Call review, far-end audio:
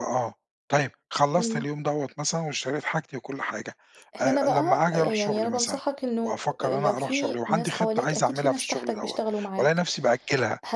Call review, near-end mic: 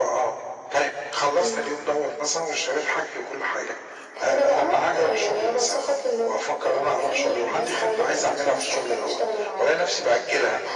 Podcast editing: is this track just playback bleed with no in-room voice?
Yes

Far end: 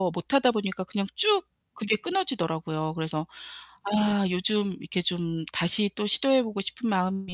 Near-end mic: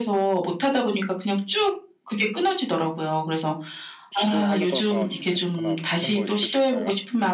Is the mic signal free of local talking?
No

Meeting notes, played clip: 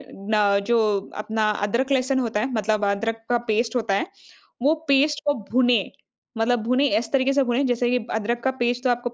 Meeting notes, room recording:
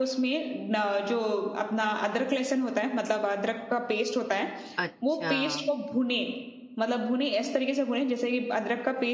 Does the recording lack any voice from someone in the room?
No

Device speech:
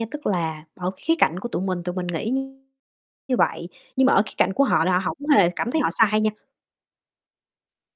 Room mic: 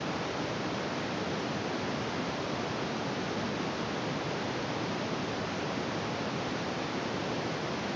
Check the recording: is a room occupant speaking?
No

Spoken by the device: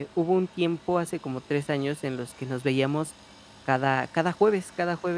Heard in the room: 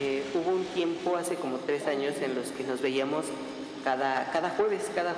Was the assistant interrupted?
Yes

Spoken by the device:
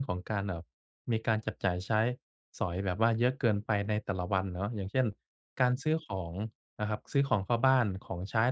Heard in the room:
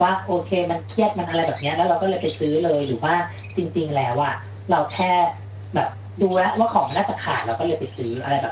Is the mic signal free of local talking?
No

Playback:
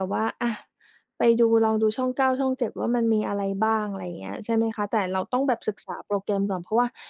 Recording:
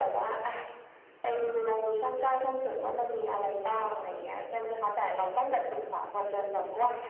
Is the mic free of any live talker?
Yes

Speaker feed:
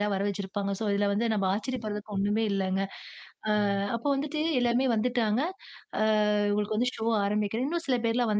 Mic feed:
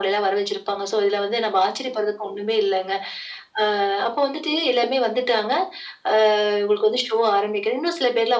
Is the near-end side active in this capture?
No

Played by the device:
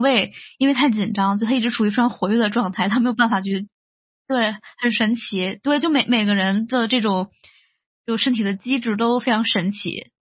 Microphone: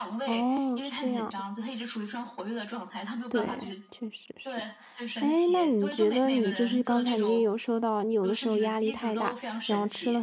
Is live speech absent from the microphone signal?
No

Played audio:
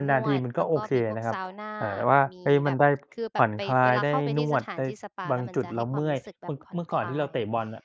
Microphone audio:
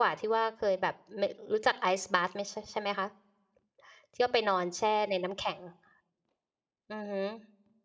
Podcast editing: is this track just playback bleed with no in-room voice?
No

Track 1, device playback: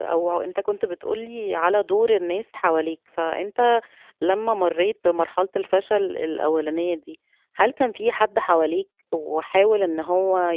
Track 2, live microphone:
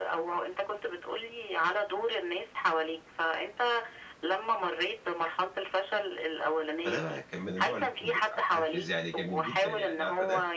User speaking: Yes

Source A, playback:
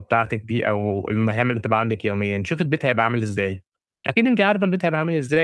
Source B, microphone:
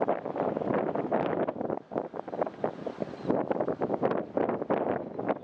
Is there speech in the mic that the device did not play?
No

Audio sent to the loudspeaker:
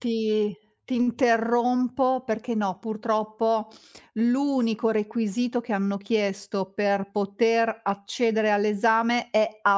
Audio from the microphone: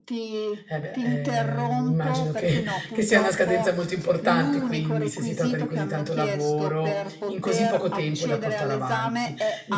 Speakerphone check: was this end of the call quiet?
No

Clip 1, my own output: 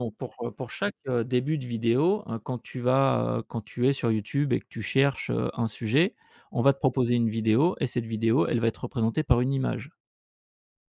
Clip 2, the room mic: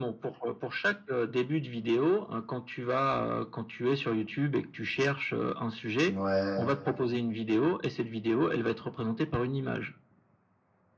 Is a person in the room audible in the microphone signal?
Yes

